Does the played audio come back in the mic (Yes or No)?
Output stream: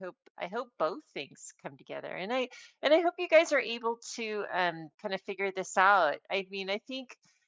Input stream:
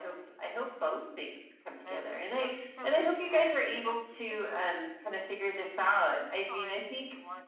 Yes